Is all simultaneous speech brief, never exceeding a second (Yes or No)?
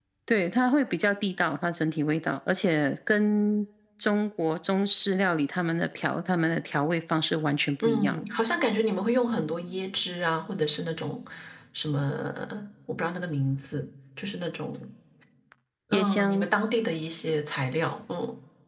Yes